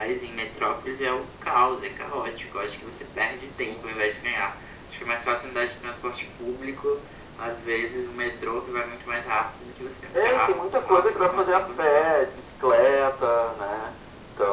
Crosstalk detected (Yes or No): Yes